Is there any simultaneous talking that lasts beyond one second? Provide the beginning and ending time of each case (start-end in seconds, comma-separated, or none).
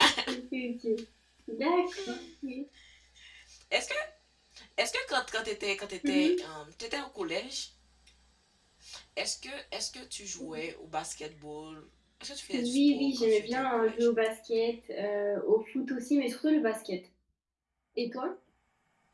12.5-14.1